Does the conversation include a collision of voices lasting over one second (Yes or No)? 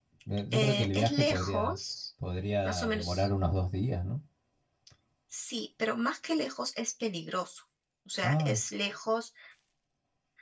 Yes